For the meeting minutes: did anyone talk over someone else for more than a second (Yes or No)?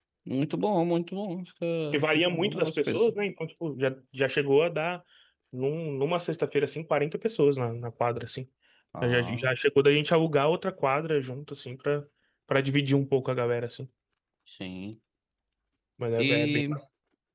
Yes